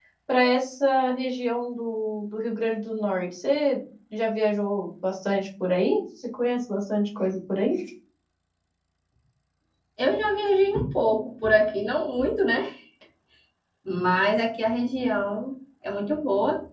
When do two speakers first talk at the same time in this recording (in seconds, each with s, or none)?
none